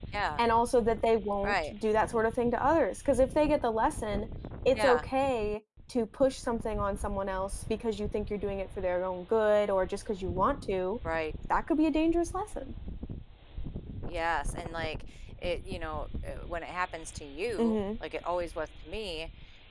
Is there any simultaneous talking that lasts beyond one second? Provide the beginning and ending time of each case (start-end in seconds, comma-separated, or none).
none